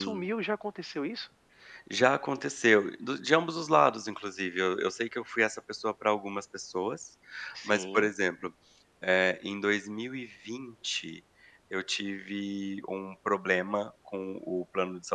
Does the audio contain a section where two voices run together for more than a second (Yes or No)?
No